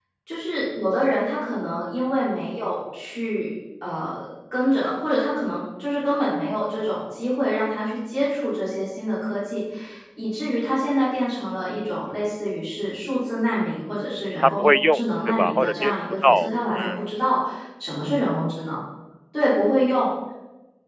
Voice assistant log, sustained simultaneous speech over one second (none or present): present